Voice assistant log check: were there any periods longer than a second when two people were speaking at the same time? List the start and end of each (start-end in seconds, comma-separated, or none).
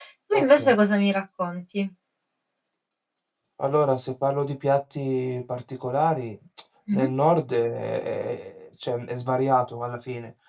none